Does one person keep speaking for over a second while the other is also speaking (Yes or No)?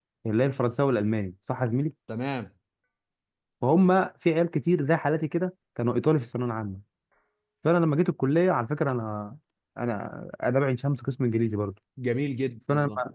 No